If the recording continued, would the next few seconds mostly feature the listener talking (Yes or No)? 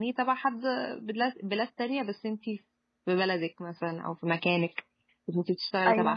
No